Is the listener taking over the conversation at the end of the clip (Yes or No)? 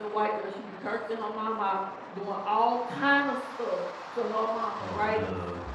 No